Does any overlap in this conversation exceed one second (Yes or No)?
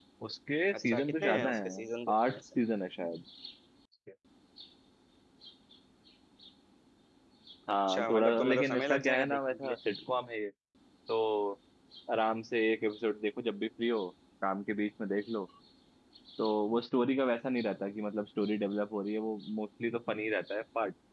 Yes